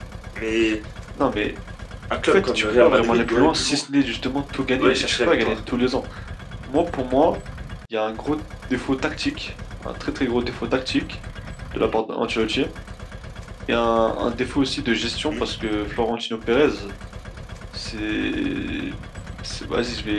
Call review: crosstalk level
present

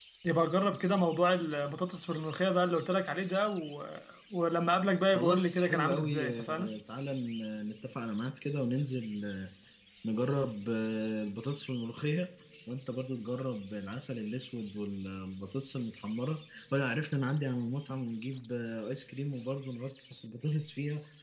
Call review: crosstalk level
present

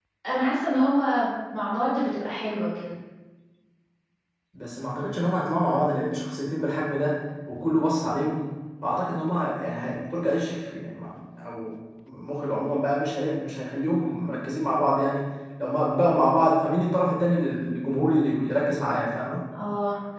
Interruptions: none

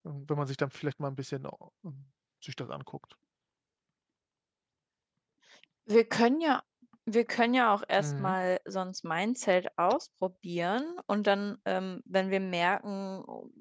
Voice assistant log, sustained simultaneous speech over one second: none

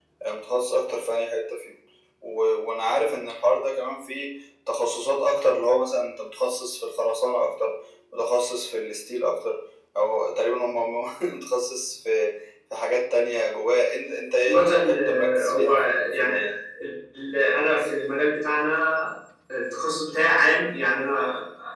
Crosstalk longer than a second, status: present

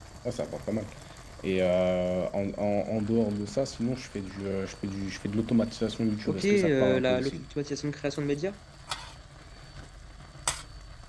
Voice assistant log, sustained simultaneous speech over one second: present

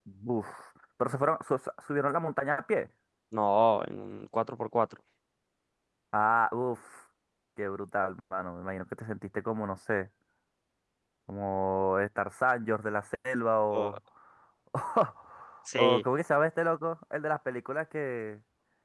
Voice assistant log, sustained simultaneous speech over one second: none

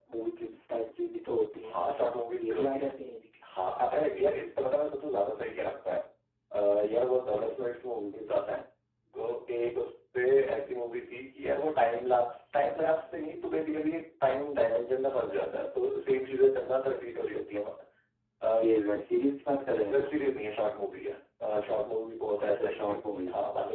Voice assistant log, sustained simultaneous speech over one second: none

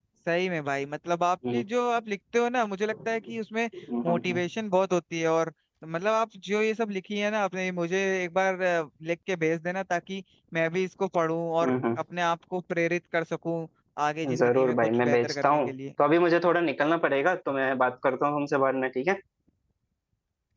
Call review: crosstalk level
present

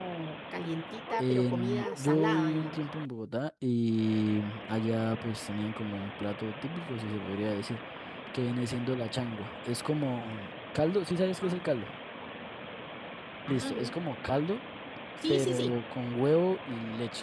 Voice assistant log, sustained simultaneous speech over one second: present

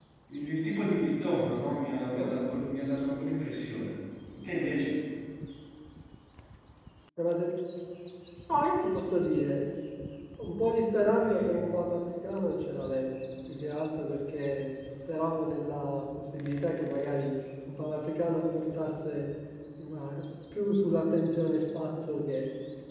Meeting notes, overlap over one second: none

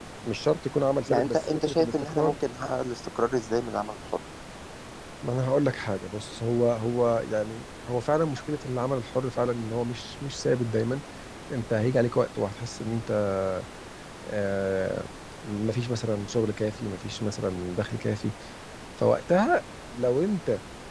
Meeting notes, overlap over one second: present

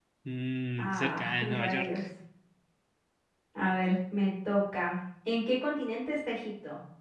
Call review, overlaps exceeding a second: present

